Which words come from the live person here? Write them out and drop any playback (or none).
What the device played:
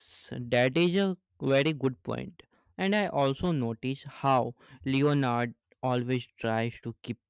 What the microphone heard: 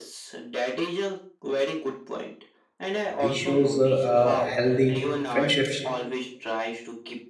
This shows uh, a healthy friendship